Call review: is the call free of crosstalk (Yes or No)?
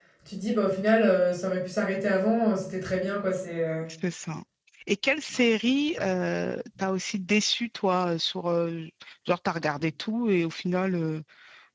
Yes